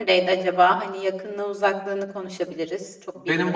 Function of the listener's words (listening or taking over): taking over